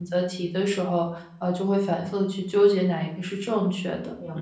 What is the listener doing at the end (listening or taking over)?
taking over